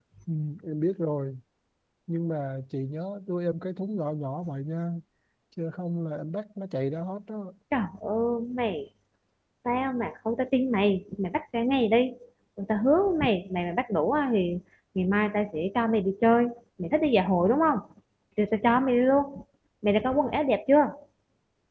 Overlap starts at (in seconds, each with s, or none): none